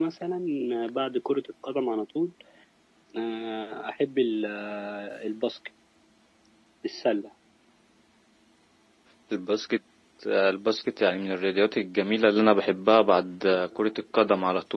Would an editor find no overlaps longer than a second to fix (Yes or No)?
Yes